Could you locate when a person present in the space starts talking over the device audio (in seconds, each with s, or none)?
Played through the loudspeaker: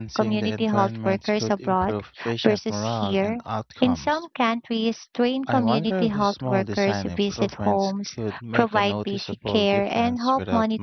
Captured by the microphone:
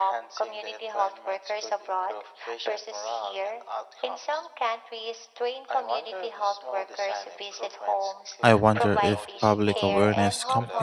8.4 s